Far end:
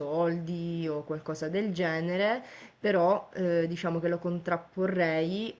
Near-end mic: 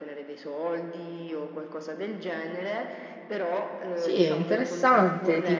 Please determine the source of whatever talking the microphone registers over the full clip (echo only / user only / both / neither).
both